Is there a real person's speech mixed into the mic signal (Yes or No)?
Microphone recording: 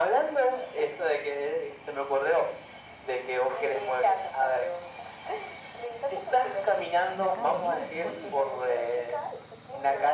Yes